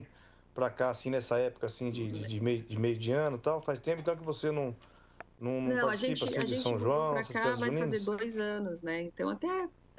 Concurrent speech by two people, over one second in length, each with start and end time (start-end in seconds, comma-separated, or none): 5.7-8.1